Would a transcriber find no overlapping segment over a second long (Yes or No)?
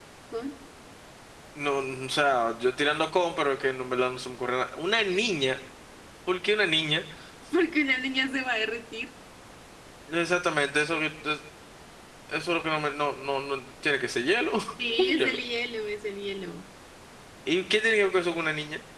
Yes